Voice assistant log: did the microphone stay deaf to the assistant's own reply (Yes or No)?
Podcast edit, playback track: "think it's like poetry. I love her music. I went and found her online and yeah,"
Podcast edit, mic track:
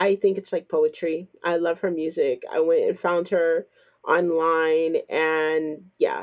No